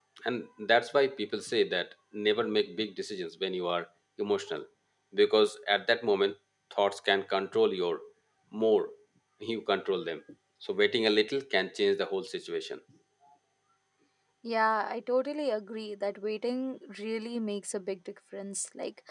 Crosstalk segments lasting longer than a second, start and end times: none

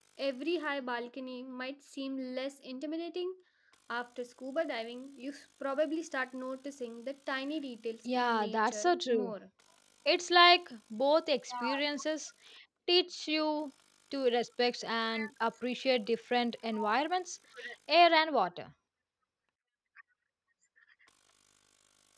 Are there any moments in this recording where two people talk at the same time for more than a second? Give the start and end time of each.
8.1-9.3

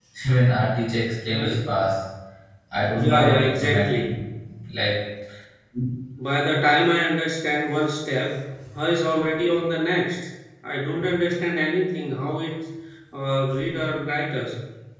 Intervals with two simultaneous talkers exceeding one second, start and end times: 2.9-4.1

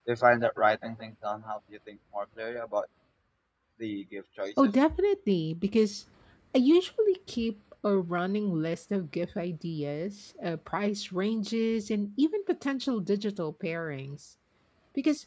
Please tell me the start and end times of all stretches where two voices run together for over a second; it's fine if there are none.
none

